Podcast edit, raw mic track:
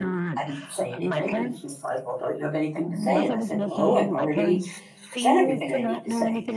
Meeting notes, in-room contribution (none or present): present